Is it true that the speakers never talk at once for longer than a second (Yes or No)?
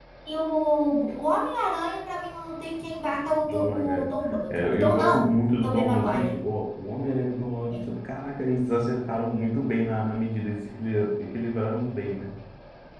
No